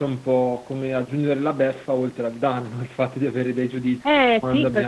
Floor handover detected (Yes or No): Yes